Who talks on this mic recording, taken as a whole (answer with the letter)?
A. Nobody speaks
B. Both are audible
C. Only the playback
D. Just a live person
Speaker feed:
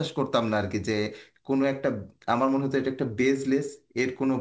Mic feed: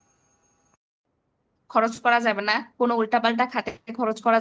D